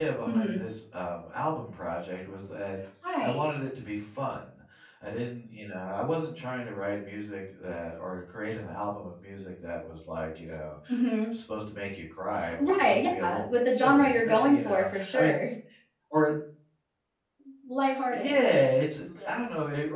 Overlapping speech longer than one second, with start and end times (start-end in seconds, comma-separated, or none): 12.6-15.4